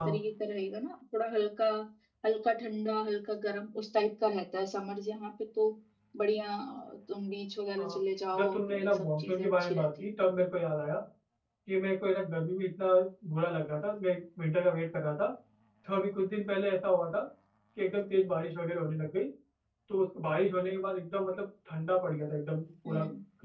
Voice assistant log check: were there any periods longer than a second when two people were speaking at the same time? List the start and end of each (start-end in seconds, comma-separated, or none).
8.3-10.1